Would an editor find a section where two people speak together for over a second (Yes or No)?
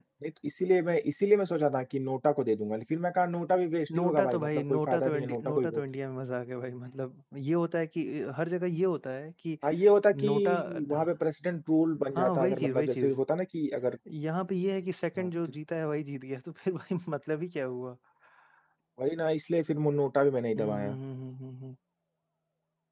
Yes